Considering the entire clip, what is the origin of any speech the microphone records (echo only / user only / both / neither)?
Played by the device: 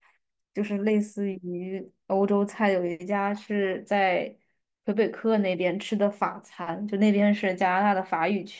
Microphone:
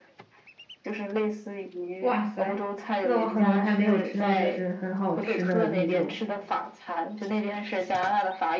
both